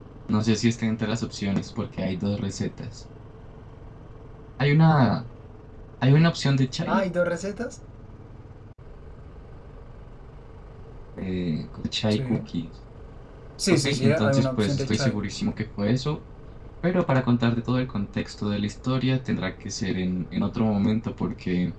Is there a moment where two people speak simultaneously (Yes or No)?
Yes